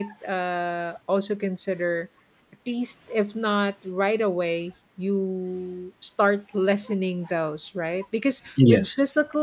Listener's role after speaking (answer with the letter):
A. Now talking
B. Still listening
B